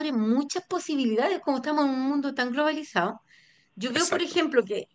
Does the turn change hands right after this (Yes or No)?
No